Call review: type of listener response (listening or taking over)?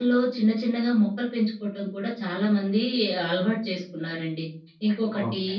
listening